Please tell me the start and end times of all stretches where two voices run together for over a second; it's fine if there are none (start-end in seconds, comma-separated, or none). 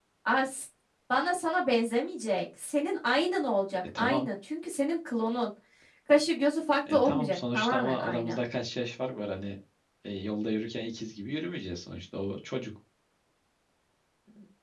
6.9-8.4